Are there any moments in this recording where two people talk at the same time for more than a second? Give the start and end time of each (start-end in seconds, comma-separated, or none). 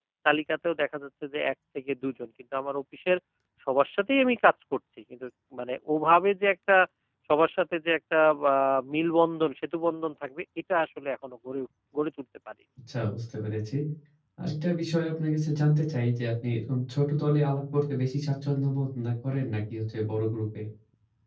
none